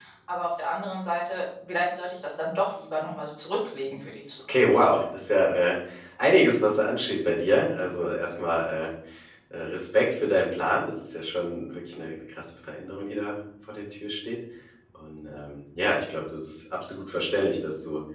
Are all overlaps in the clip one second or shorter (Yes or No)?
Yes